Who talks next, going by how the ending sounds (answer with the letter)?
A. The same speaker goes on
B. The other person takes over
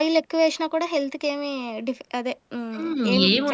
B